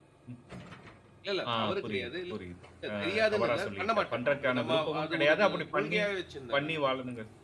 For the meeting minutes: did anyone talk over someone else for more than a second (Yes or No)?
Yes